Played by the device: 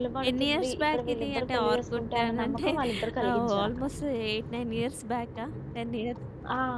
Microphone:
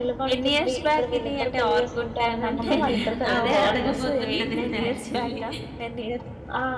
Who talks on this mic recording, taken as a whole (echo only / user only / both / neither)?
both